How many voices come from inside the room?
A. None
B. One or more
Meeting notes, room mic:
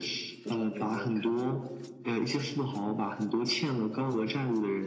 B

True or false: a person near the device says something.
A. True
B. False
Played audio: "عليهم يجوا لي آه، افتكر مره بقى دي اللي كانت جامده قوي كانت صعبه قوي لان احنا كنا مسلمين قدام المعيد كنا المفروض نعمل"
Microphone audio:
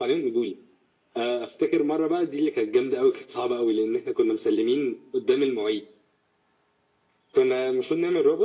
B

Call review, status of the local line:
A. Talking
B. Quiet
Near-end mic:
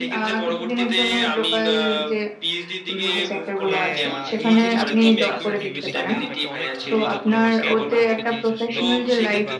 A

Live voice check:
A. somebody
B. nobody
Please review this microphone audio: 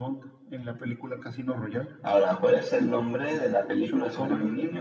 B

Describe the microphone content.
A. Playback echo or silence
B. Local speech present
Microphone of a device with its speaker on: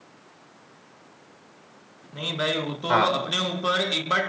B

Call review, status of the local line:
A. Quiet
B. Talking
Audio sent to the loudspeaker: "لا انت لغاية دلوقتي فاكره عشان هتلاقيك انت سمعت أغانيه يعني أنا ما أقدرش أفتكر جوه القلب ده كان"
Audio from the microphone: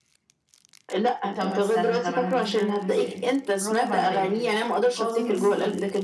B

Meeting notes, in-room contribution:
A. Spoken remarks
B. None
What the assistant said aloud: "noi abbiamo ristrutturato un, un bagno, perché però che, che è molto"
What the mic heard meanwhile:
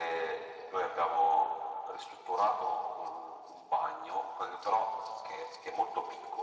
B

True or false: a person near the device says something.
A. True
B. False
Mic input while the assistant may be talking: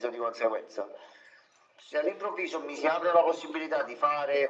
B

